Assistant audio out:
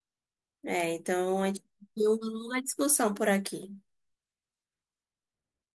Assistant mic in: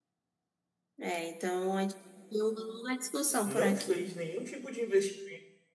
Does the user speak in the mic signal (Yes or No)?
Yes